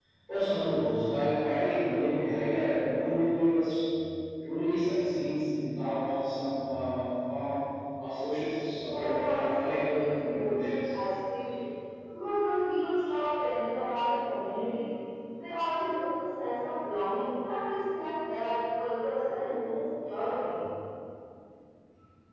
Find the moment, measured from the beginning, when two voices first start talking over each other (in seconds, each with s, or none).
8.9 s